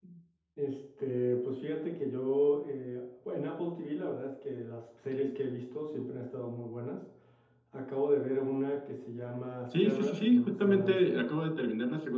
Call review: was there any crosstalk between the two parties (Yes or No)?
Yes